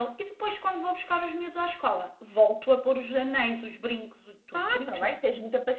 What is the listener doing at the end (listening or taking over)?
taking over